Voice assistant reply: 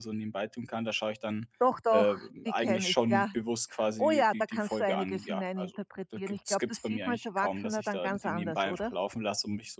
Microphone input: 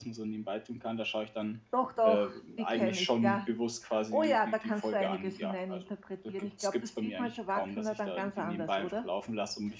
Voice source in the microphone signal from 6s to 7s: echo only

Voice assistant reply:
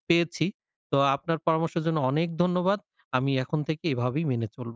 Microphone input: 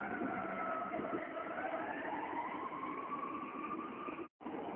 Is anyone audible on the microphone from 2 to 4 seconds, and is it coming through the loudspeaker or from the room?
neither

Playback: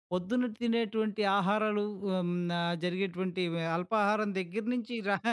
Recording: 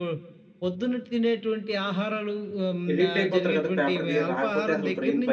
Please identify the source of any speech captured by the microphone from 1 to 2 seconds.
echo only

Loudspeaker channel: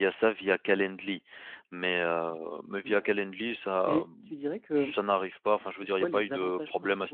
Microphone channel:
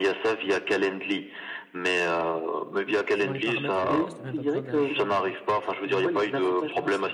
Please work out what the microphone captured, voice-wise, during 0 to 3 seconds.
echo only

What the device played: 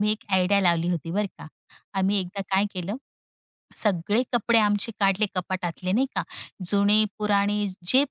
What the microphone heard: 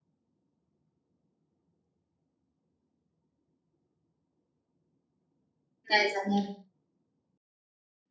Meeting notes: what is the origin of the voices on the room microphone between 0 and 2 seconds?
neither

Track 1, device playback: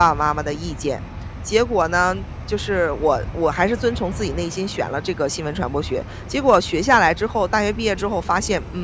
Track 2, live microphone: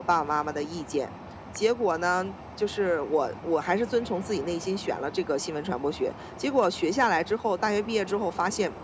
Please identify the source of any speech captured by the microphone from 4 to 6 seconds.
echo only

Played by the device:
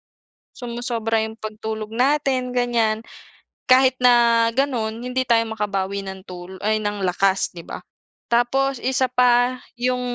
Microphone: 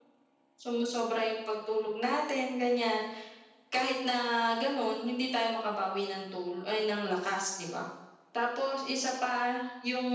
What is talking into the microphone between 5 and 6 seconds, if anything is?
echo only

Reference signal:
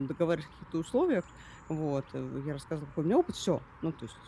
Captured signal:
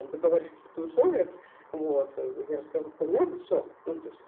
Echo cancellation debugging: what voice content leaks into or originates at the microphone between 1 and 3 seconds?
echo only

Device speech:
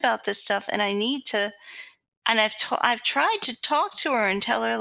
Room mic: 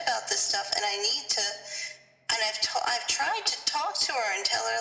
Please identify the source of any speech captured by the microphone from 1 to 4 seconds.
echo only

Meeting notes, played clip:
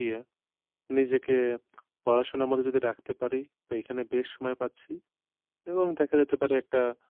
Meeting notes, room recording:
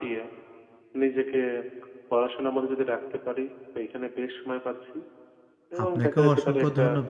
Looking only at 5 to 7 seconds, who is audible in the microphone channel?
both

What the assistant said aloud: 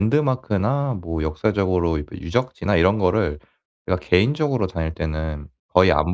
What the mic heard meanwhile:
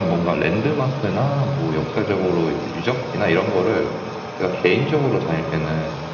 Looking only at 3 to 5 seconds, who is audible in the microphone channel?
echo only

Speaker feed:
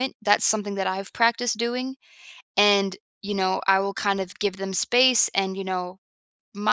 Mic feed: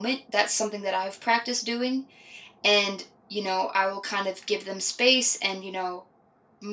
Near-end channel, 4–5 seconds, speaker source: echo only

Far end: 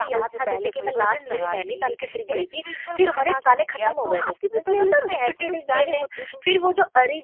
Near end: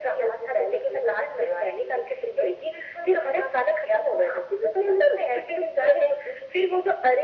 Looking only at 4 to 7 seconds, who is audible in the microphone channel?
echo only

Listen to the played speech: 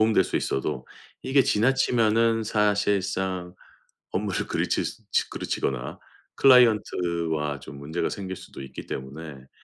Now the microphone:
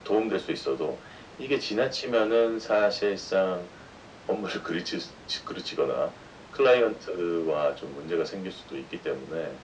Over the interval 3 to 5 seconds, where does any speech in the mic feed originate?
echo only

